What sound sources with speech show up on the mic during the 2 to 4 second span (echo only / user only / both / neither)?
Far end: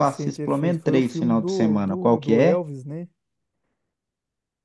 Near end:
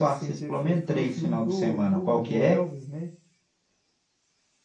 echo only